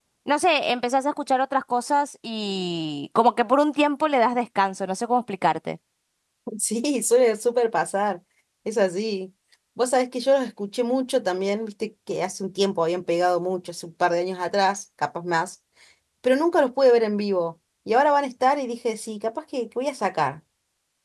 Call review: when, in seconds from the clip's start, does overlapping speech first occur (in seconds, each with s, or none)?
none